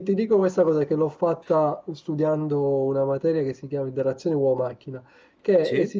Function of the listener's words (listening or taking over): listening